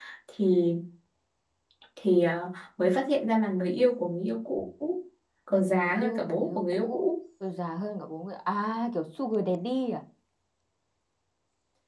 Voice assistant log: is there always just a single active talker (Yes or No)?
No